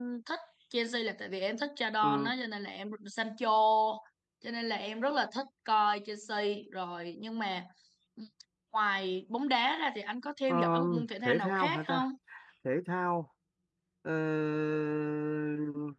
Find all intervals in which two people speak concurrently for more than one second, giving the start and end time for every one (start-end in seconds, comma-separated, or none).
10.5-12.1